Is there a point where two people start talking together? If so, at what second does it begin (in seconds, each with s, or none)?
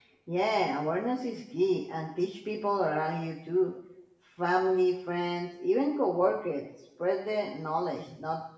none